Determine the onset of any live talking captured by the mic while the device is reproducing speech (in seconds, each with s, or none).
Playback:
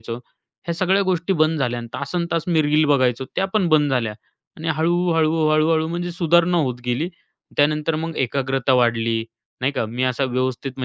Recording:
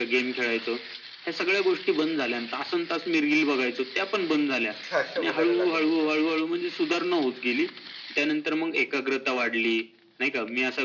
4.8 s